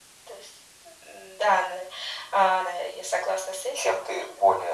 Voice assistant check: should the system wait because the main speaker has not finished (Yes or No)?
No